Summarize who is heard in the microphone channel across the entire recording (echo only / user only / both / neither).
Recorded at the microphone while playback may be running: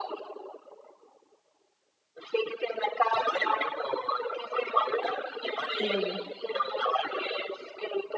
both